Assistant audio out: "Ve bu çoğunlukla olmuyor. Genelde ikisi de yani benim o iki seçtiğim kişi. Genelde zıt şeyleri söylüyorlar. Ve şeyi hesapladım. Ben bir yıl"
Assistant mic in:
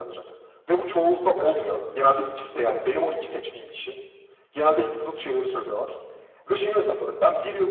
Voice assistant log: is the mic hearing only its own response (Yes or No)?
Yes